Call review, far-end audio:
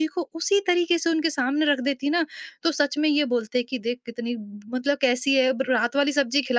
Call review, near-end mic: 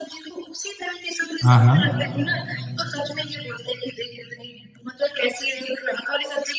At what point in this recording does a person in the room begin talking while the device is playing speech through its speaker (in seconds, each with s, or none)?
1.4 s